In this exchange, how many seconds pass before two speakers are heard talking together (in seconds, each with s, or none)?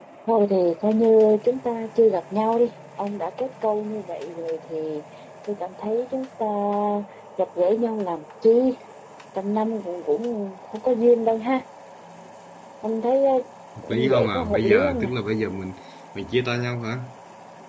13.9 s